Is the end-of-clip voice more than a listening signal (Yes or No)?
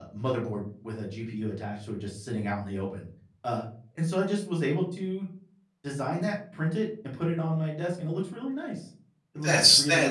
Yes